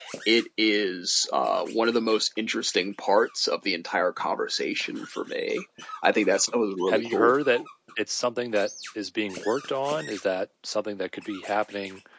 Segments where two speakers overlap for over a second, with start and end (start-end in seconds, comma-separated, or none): none